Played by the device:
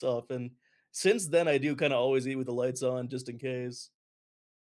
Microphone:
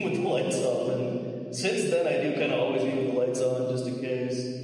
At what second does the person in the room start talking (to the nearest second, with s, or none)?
none